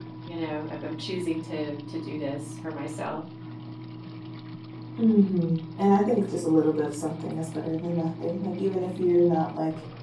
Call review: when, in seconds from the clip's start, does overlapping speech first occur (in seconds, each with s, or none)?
none